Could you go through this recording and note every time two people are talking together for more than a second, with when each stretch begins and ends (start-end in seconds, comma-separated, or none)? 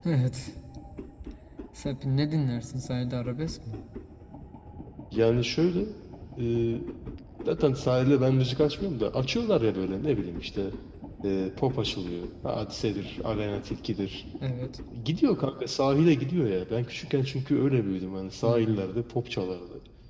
none